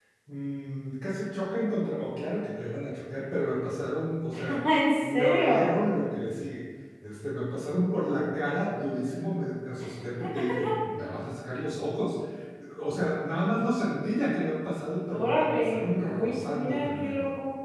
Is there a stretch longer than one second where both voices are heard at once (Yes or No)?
Yes